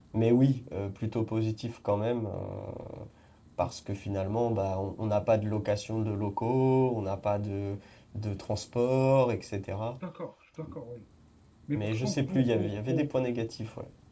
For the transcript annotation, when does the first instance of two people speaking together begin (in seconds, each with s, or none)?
11.7 s